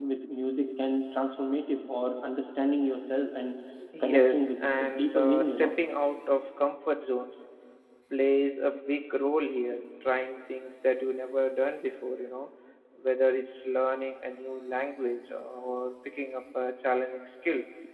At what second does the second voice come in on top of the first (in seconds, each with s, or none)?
4.0 s